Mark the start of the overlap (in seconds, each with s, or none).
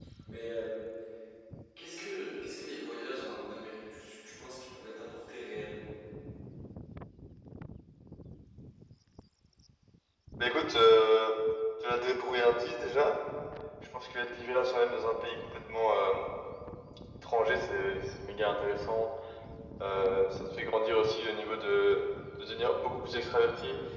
none